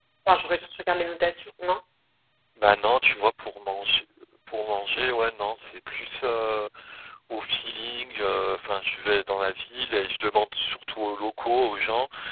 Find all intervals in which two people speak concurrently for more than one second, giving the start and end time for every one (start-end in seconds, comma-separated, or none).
none